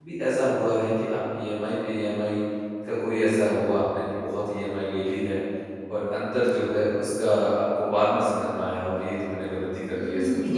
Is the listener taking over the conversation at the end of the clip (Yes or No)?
Yes